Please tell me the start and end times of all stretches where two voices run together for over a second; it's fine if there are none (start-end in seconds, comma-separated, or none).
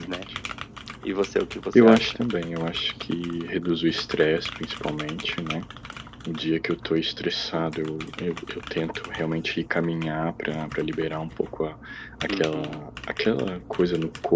none